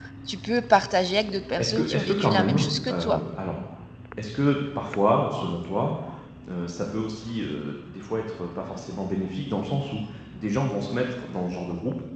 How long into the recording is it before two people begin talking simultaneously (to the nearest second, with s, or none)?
2 s